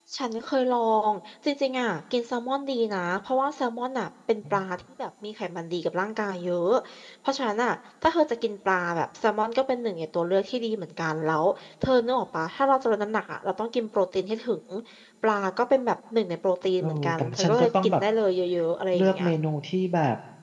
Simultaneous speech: Yes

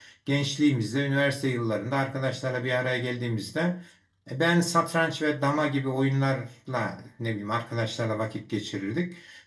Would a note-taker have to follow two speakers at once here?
No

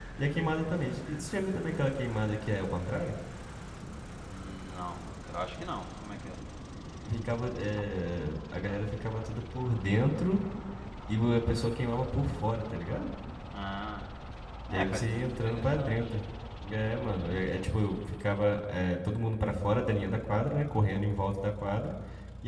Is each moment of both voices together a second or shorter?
No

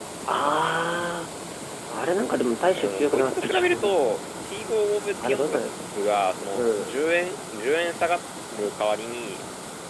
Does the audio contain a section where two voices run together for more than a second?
Yes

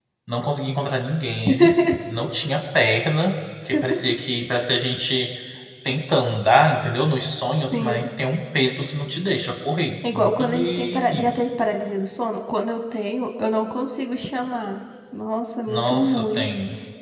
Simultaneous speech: Yes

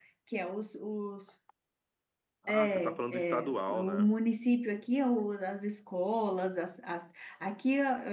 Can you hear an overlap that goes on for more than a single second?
Yes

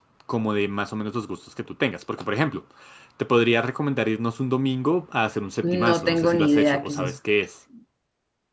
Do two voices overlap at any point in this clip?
Yes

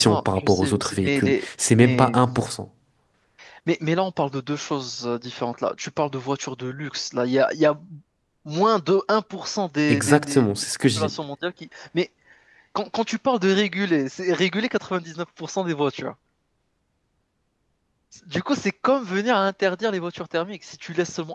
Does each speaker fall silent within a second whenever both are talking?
No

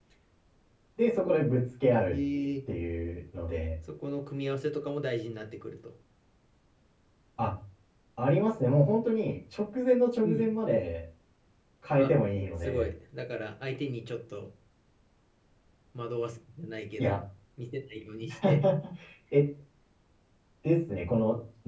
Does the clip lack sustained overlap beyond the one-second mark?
Yes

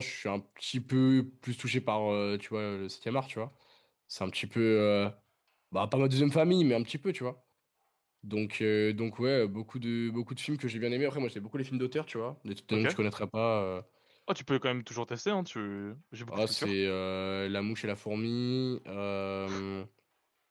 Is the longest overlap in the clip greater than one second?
No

